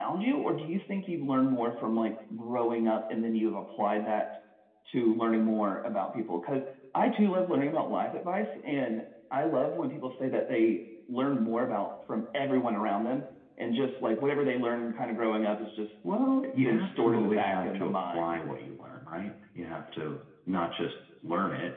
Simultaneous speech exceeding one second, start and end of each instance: 16.6-18.4

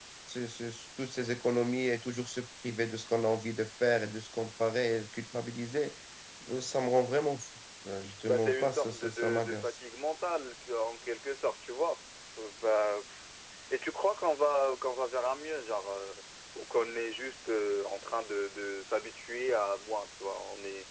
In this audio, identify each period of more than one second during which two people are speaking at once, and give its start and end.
8.3-9.7

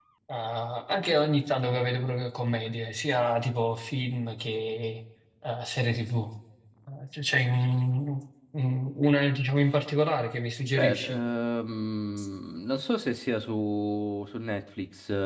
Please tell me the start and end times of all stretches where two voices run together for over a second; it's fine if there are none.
none

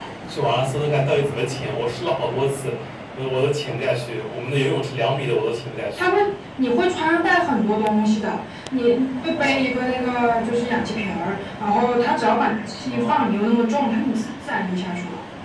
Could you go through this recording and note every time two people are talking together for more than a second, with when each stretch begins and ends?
none

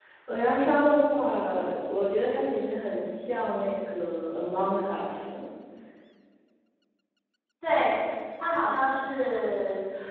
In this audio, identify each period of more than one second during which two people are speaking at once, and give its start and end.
none

